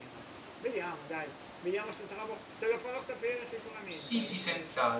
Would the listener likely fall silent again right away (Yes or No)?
No